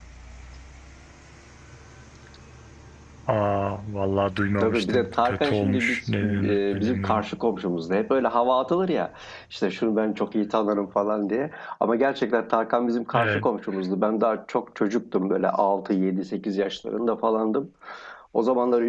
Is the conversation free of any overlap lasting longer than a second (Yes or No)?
No